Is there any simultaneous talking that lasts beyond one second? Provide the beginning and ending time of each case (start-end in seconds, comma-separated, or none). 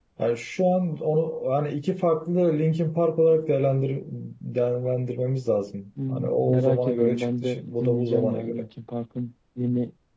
6.1-8.7